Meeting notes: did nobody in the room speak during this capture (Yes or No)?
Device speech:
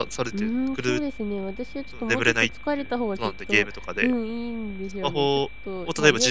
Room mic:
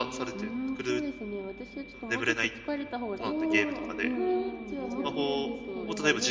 No